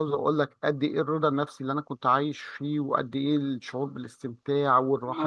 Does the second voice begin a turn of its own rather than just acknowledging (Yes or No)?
Yes